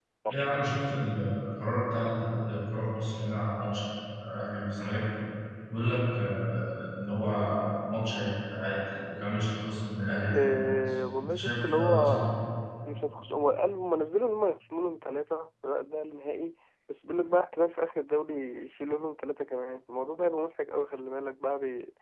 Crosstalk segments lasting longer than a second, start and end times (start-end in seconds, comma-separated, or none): 10.3-12.2